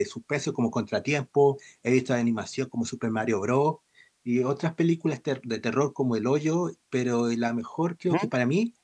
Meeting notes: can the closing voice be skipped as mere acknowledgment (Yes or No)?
Yes